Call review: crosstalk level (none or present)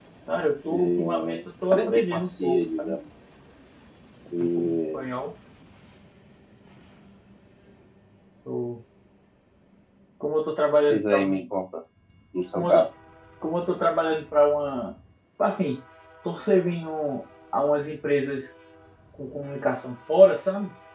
present